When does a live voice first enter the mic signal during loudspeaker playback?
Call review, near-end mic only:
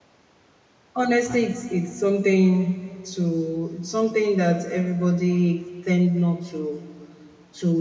1 s

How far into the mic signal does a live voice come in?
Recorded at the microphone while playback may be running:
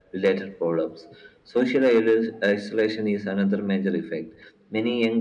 none

